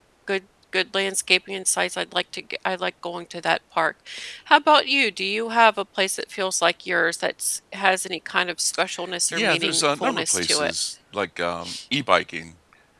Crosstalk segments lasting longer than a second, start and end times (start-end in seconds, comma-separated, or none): 9.3-10.7